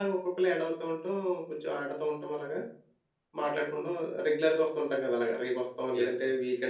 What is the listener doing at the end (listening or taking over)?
taking over